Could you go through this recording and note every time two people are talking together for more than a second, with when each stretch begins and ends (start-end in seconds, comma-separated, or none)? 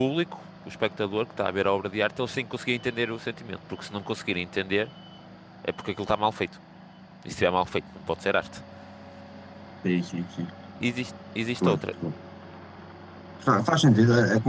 none